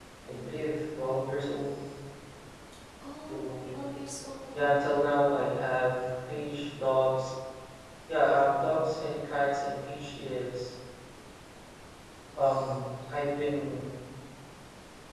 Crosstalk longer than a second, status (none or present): none